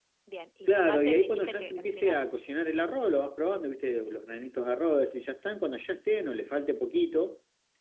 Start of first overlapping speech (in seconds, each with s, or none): 0.7 s